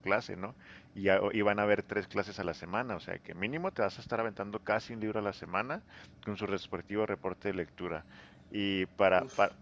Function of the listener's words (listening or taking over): listening